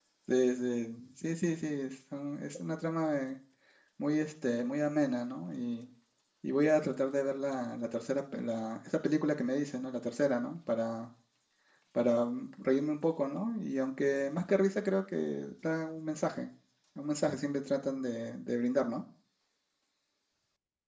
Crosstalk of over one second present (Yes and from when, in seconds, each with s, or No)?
No